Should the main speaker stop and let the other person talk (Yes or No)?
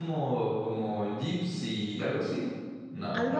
Yes